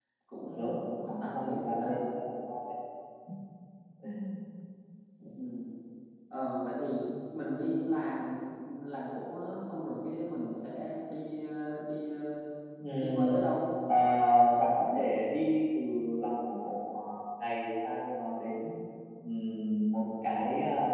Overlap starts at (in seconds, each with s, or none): 0.6 s